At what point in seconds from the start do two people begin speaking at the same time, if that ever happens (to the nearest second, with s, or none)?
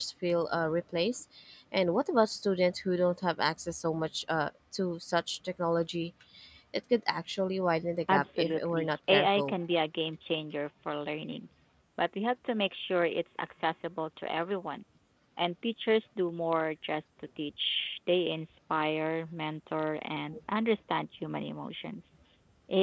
8 s